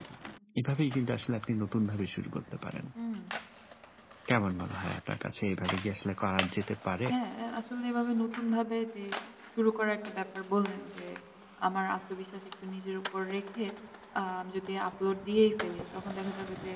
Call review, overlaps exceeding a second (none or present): none